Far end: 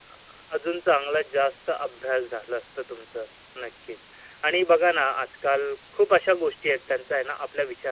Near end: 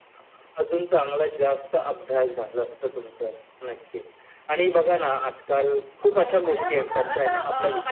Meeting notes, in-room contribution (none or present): present